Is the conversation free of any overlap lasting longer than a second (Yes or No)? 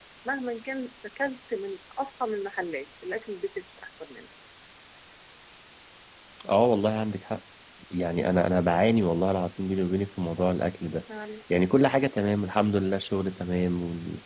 Yes